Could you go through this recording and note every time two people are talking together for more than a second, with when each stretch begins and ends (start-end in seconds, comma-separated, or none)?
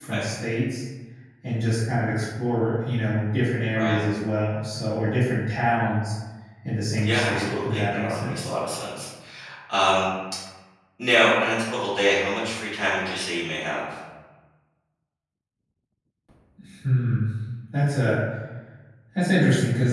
7.0-8.5